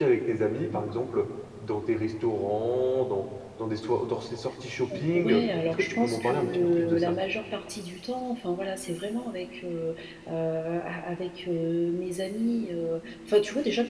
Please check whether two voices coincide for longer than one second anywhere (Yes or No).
Yes